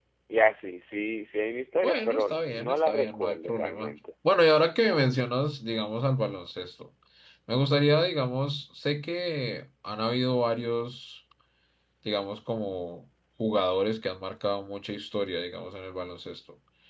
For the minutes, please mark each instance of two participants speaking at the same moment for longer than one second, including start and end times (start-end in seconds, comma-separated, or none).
1.8-4.0